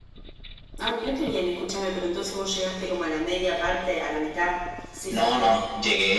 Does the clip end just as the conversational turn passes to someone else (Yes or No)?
Yes